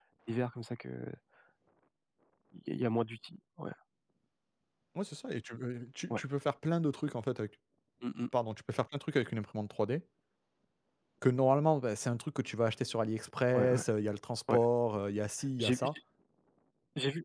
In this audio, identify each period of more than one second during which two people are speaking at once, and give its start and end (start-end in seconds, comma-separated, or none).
none